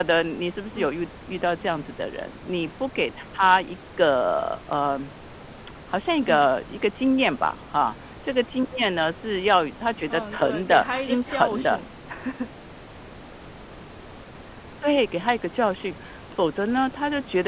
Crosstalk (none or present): present